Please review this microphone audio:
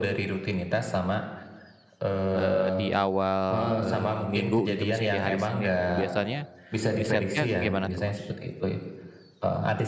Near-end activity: present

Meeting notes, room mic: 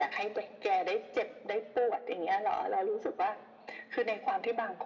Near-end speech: none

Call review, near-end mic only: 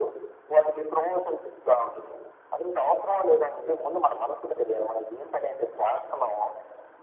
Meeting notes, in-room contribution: none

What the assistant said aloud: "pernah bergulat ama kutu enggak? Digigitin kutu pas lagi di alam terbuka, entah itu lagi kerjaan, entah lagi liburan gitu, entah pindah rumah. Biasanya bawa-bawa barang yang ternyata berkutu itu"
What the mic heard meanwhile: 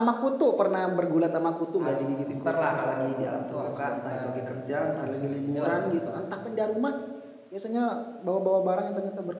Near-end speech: present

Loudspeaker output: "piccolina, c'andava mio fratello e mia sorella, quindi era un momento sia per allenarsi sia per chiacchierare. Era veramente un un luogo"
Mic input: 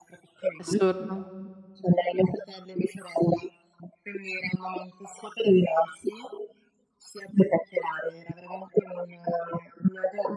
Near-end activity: present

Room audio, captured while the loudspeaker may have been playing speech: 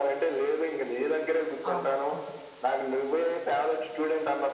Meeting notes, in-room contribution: present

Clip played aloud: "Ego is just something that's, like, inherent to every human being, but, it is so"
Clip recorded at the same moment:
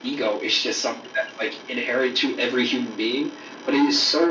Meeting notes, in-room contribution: none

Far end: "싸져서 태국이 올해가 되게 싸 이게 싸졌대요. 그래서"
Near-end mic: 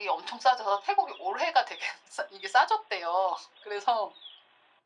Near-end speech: none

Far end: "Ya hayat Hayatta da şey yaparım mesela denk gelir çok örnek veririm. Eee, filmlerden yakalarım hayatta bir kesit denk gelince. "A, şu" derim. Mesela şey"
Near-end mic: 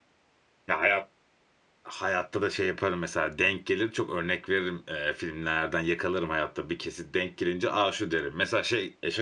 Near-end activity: none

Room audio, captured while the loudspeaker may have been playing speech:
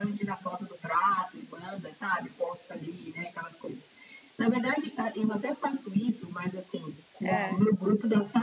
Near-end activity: present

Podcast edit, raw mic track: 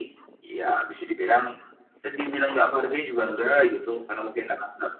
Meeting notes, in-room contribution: none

